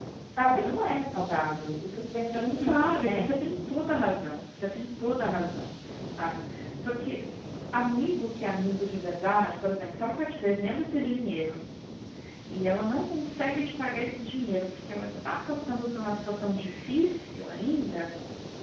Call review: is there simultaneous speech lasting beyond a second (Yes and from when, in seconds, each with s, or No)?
Yes, from 2.2 s